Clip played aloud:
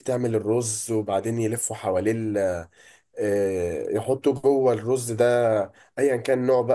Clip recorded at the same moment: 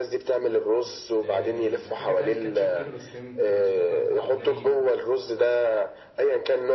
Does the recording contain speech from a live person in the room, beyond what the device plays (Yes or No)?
Yes